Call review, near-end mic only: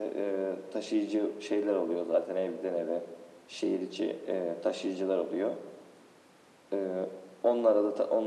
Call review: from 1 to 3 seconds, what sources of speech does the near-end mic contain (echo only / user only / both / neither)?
echo only